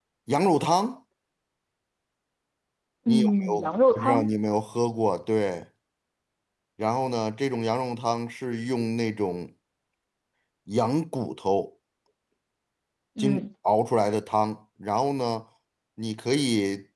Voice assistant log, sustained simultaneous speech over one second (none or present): present